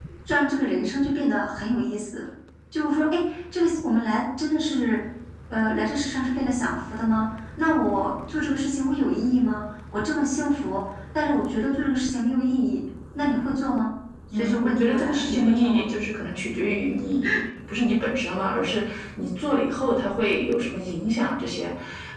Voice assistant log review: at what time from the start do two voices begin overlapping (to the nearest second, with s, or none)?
14 s